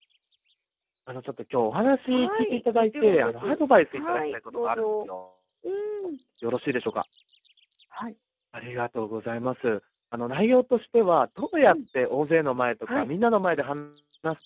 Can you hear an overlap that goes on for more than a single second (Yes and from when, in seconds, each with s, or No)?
Yes, from 2.1 s